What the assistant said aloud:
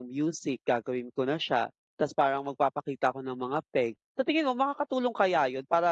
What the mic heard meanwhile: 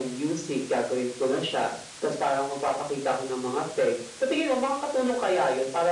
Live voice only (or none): none